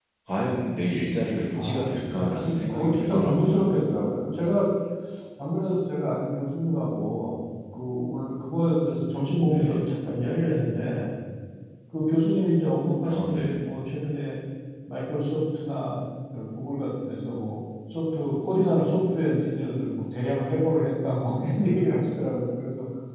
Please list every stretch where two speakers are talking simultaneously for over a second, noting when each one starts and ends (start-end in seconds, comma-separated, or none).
1.5-3.7